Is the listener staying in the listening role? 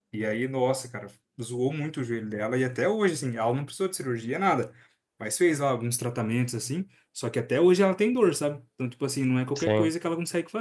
Yes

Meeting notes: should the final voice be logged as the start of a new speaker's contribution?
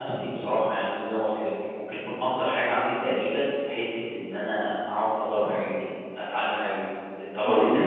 No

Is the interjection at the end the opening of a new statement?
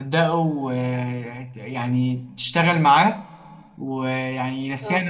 No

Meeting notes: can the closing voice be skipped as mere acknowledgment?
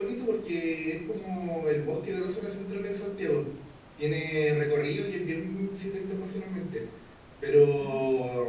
Yes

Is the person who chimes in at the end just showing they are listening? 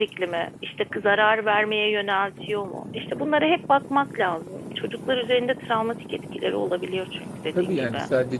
No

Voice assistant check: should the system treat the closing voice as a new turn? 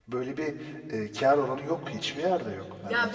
Yes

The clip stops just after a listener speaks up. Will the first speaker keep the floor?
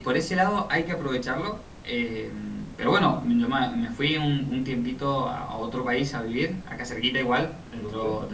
Yes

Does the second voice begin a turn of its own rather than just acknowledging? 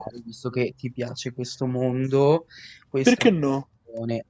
No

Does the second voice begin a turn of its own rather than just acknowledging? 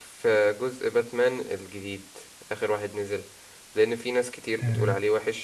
No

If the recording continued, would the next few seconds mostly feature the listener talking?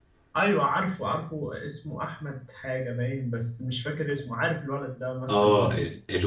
Yes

